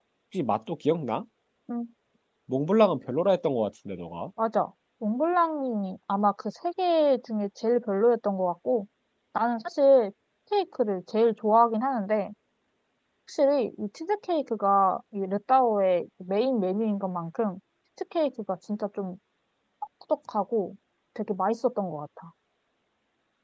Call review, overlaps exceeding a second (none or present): none